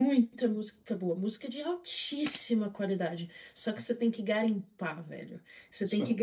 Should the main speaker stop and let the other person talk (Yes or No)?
No